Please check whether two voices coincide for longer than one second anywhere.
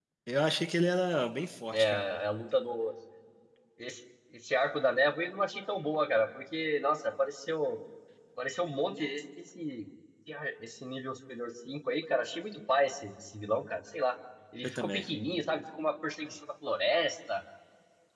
No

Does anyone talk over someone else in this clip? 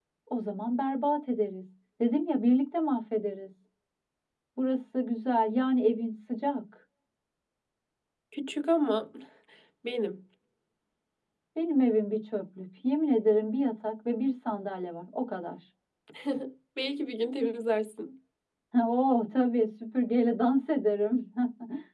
No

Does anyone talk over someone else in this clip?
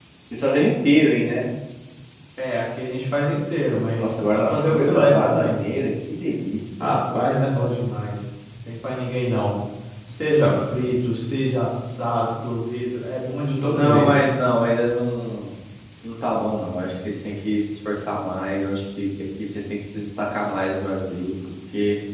Yes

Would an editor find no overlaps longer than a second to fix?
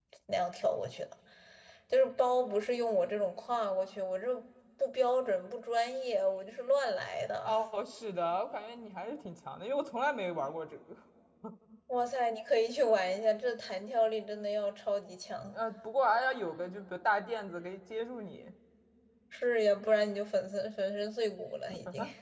Yes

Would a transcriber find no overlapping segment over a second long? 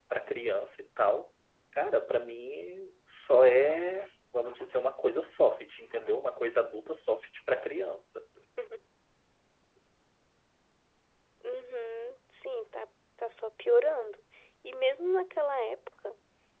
Yes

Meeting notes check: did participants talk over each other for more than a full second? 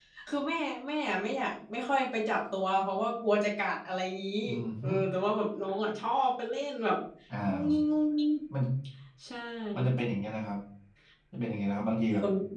No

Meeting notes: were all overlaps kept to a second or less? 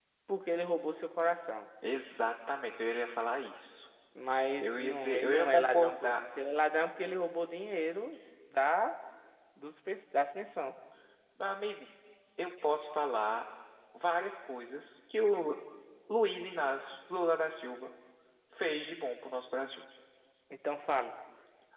No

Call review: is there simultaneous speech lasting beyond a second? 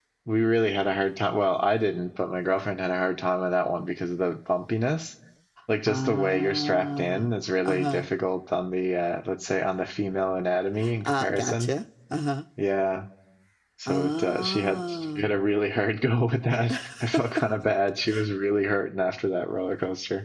Yes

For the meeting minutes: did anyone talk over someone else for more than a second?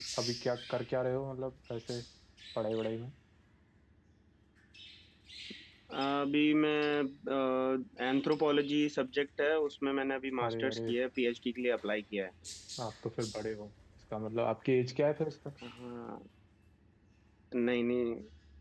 No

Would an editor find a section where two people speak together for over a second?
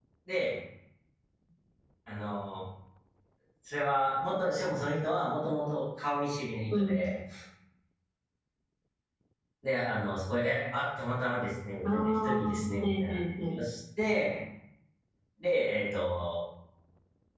Yes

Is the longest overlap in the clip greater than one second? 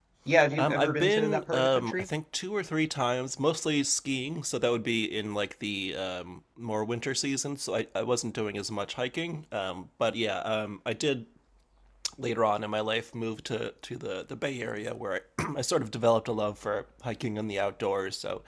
Yes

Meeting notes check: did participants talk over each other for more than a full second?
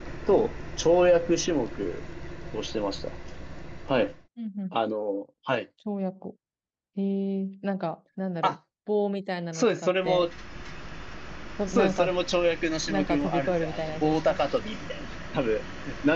Yes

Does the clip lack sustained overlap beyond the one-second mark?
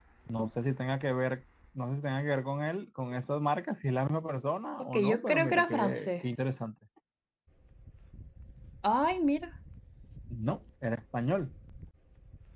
No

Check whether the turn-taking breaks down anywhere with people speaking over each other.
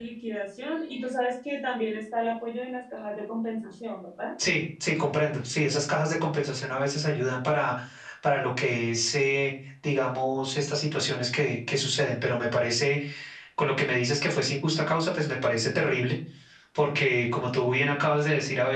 No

